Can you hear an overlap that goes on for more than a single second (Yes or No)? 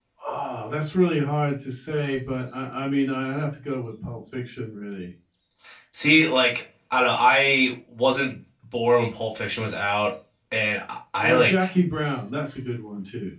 No